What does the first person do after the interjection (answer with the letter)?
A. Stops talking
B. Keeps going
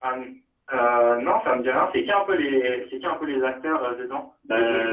A